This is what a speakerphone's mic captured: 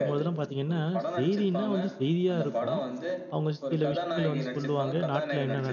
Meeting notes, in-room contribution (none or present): present